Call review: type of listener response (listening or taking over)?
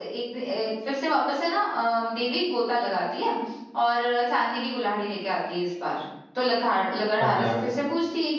listening